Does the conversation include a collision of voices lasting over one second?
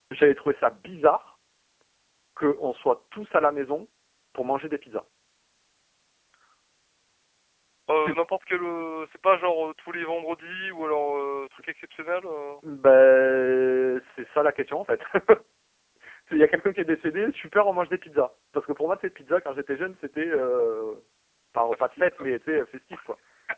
No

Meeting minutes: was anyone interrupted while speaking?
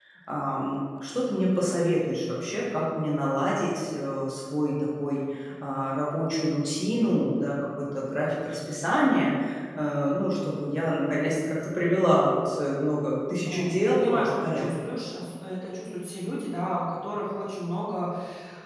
Yes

